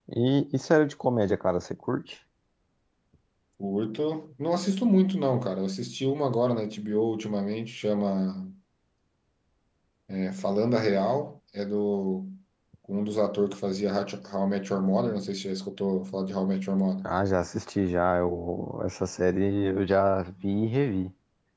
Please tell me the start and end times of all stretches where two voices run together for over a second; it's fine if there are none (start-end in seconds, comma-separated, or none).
none